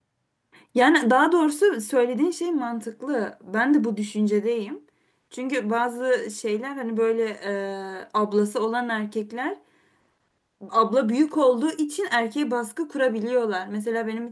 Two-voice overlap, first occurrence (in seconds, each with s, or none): none